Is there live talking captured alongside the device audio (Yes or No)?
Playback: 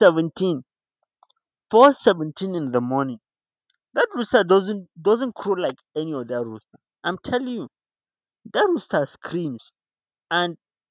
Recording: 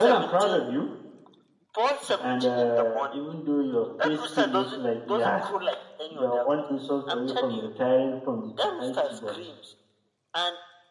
Yes